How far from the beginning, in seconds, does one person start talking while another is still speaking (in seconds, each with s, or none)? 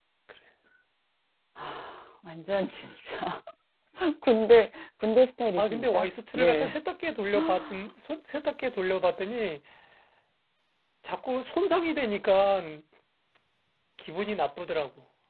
5.6 s